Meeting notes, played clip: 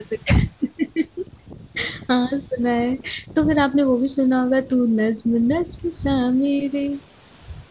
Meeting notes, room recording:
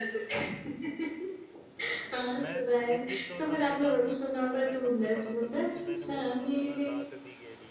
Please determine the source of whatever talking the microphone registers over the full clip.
both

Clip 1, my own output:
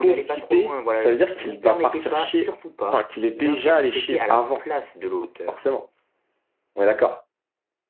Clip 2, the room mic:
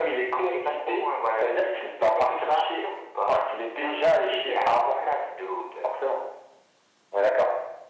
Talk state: echo only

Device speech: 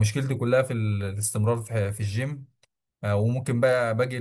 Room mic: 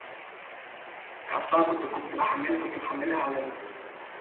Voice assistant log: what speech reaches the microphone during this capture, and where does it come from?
user only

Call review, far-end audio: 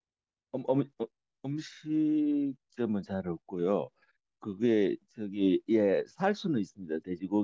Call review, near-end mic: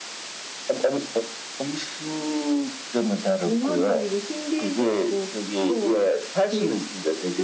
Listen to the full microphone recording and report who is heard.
both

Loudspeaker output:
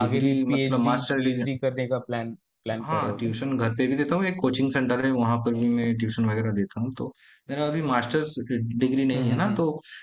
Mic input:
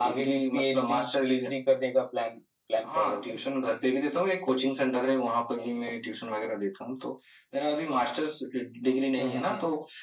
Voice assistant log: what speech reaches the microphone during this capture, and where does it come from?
echo only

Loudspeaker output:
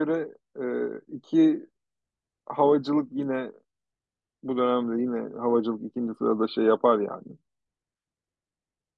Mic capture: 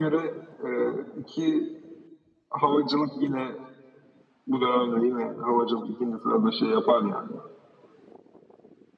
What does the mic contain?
echo only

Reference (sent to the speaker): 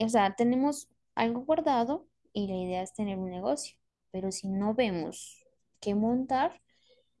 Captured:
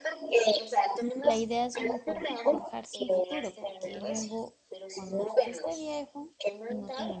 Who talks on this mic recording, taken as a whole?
both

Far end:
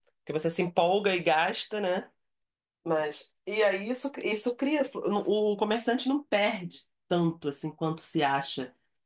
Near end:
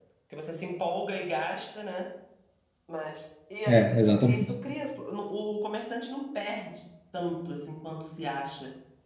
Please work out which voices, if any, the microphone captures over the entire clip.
both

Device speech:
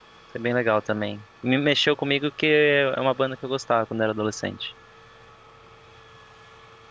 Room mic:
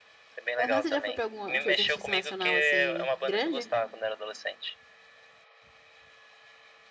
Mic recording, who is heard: both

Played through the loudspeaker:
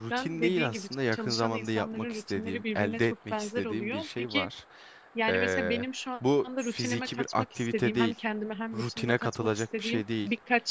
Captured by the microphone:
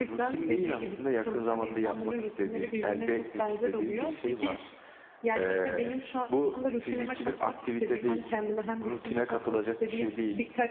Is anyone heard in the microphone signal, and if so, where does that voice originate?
echo only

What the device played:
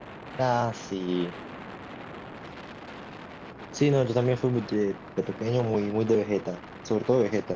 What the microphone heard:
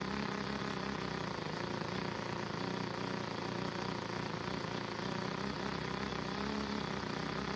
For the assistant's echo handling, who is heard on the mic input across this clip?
neither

